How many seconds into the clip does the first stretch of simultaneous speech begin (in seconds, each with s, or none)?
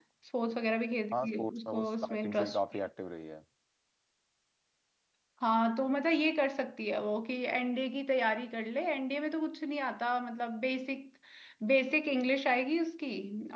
1.1 s